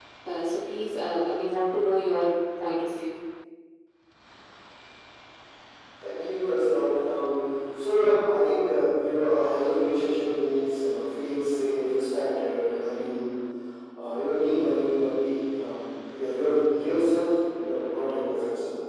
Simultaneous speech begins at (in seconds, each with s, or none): none